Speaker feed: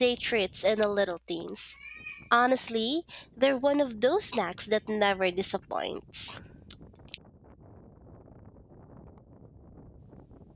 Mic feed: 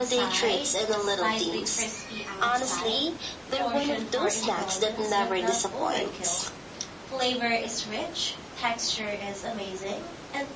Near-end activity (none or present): present